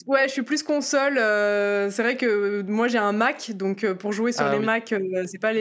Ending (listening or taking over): listening